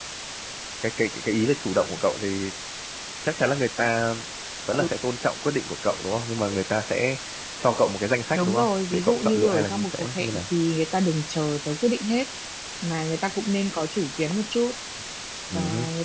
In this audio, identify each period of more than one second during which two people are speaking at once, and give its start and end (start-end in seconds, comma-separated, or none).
8.3-10.4